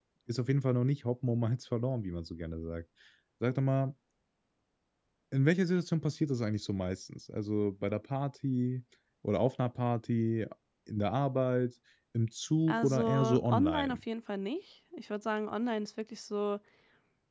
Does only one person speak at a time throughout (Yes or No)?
No